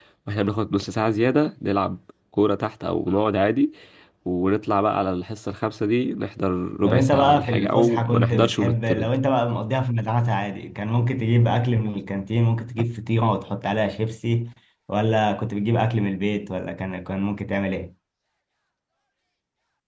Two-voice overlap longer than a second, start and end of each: 6.8-9.2

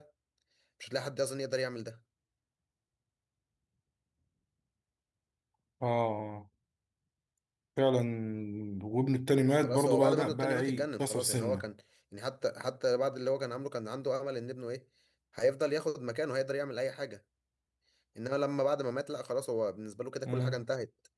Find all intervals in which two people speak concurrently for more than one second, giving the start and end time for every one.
9.6-11.7

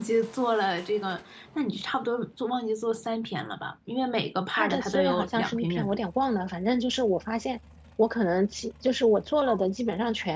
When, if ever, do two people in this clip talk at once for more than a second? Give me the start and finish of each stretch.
4.5-6.0

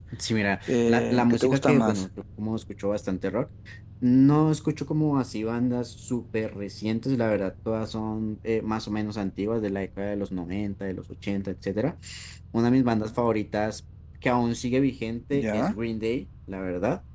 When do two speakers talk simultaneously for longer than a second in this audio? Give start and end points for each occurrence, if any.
0.7-2.0

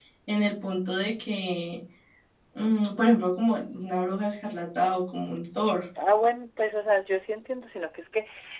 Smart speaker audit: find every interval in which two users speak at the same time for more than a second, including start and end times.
none

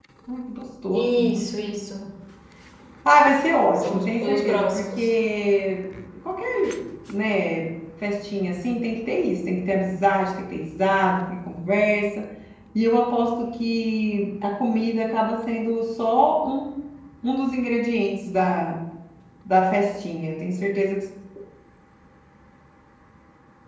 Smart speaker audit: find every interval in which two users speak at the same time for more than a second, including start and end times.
3.8-5.1

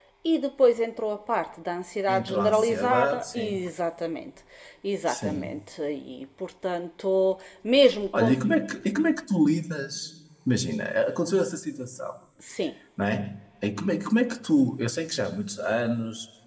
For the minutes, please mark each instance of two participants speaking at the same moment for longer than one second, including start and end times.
2.1-3.6

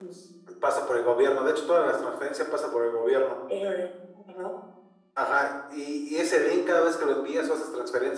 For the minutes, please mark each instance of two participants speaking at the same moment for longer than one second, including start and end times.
none

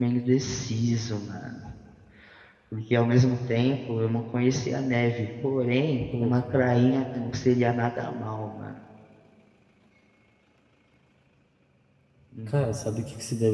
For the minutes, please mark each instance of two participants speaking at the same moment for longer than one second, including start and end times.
none

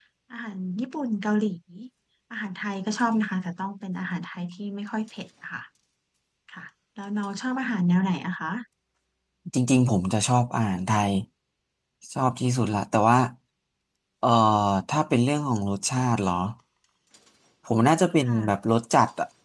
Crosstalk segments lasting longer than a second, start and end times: none

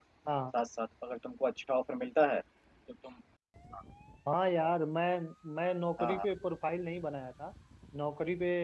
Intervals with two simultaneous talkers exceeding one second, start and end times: none

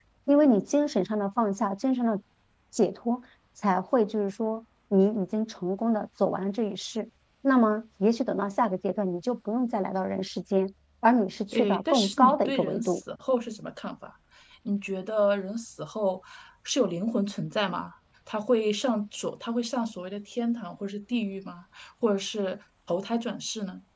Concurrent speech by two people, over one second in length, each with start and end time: 11.5-13.0

